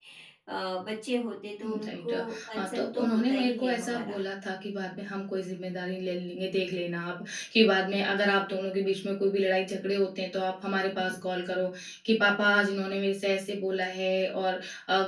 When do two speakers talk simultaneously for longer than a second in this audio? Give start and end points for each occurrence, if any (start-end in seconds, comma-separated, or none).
1.6-4.2